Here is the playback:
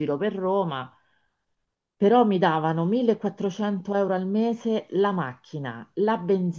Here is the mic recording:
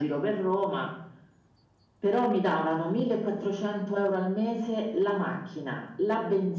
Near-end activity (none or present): none